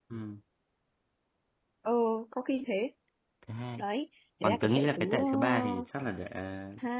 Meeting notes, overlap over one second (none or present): present